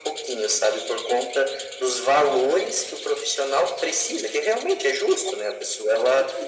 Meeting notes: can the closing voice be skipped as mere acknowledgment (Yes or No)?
Yes